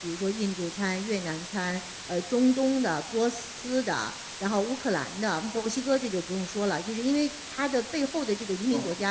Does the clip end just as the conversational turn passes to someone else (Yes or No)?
No